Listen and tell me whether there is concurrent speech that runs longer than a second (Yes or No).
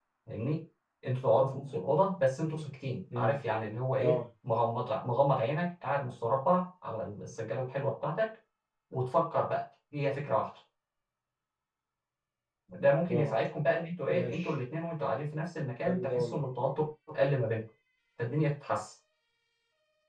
No